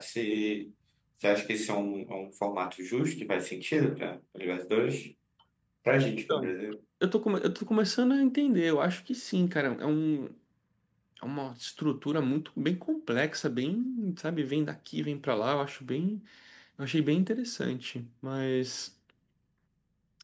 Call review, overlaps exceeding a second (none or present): none